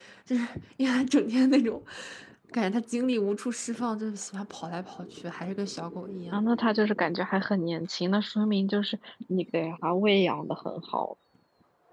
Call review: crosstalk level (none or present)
none